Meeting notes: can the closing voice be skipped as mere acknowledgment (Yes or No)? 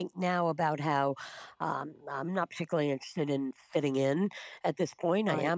Yes